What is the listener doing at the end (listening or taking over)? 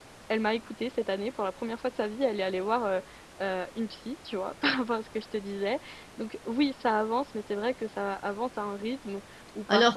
listening